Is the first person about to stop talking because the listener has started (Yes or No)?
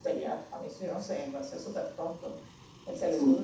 No